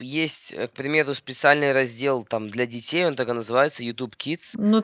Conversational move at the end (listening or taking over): taking over